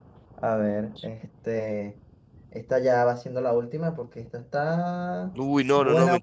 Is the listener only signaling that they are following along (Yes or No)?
No